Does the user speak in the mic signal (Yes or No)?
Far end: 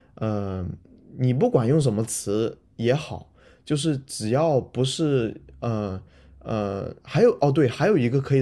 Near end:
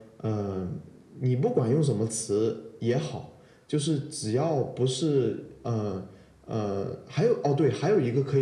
No